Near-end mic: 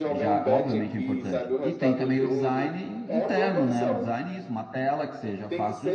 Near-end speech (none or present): present